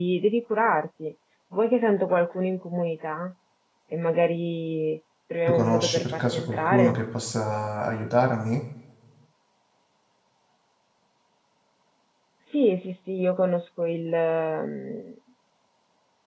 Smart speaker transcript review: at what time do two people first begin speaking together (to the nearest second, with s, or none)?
5 s